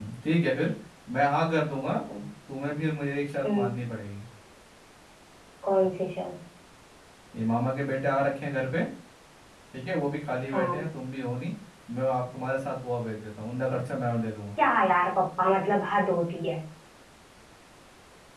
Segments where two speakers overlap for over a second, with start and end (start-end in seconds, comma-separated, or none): none